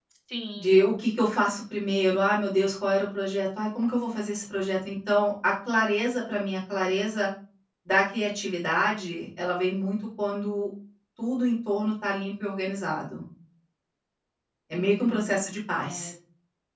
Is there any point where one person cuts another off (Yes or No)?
Yes